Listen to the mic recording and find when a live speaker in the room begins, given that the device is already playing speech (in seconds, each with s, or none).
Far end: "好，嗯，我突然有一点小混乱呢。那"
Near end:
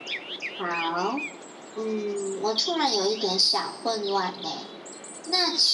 none